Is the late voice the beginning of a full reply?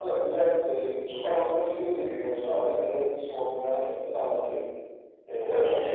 No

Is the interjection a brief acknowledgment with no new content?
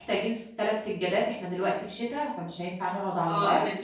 No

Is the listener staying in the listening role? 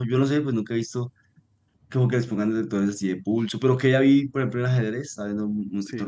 Yes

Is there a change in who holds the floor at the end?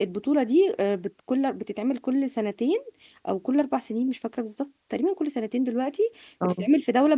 No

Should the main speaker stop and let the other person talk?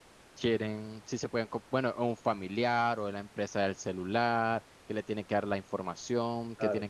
No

